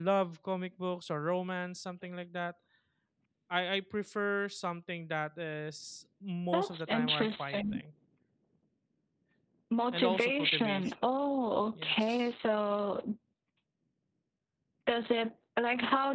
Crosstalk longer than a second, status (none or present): present